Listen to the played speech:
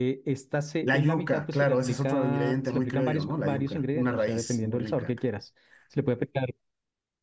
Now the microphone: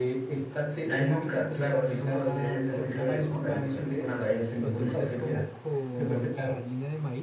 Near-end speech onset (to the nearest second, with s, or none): 5 s